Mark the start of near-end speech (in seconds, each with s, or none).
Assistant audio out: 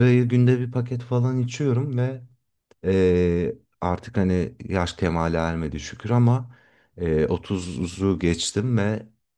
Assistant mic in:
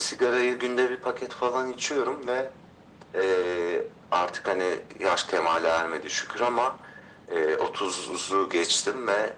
none